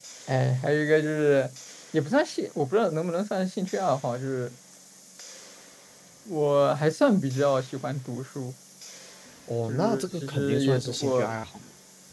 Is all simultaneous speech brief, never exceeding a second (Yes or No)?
No